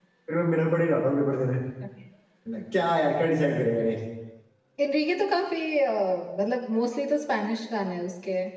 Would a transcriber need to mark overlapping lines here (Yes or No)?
No